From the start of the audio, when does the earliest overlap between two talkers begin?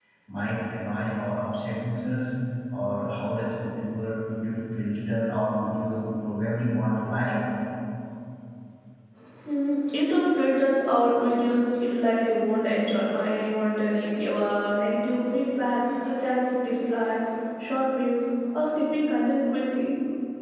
none

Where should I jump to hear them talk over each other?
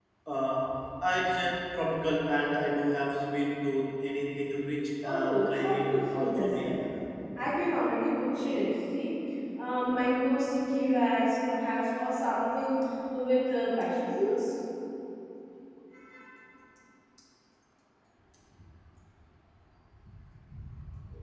5.0 s

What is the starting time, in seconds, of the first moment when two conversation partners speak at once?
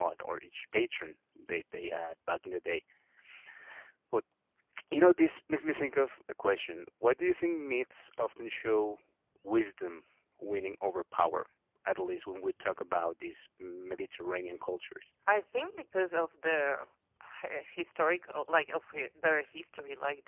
none

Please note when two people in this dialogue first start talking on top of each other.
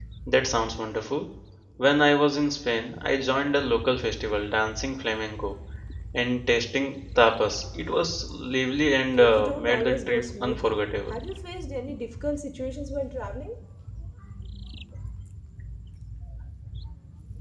9.2 s

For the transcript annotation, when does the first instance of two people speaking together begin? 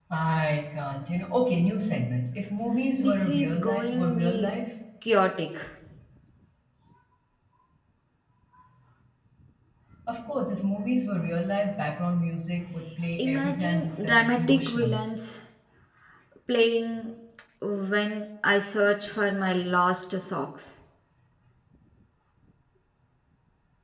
3.0 s

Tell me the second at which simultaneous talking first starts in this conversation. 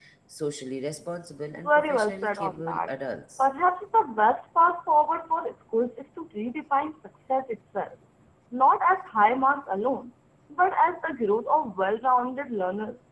1.6 s

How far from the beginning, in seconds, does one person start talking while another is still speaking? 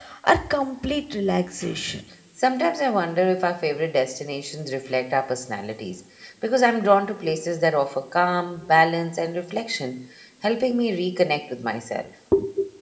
none

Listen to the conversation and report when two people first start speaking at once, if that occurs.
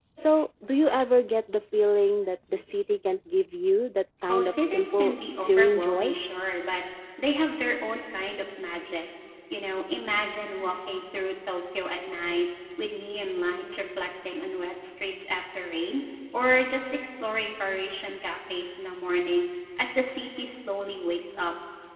4.3 s

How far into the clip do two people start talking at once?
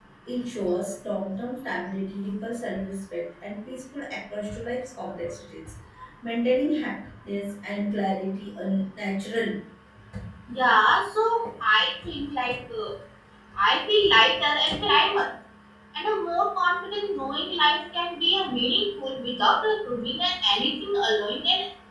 none

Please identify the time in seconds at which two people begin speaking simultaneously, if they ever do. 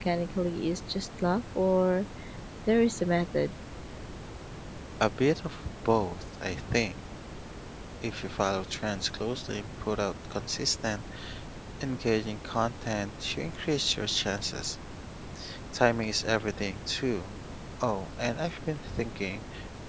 none

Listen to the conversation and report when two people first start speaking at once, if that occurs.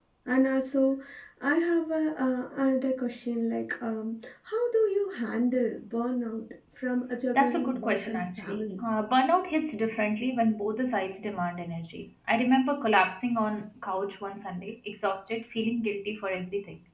7.3 s

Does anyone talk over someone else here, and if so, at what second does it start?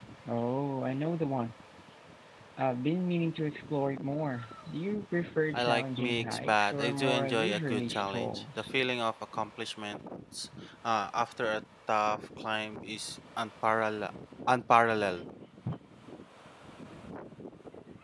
5.5 s

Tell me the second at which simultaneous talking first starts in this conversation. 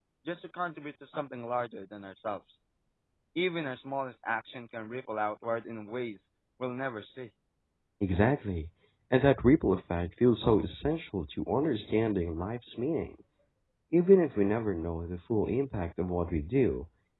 none

